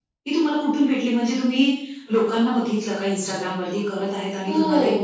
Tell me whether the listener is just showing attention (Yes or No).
No